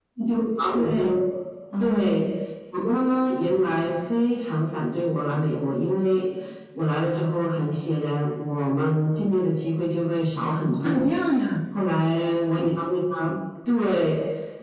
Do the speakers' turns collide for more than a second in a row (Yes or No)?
No